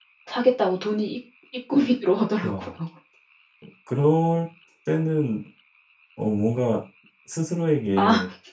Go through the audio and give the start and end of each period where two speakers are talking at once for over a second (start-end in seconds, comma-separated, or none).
none